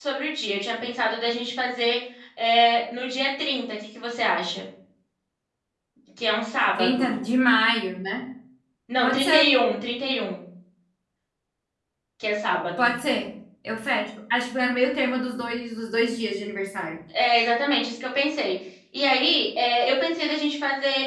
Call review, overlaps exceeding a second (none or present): none